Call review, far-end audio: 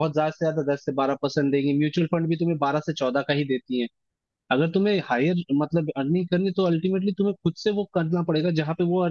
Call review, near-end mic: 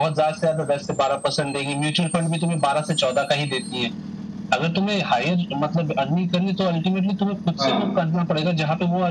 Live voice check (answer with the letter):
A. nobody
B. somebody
B